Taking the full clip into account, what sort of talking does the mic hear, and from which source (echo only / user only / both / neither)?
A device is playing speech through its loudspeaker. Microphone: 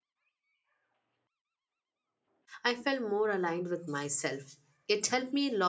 user only